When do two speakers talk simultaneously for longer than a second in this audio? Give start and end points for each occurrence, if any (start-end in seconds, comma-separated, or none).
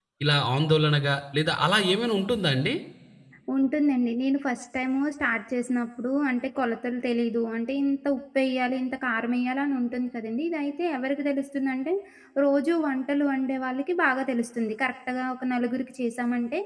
none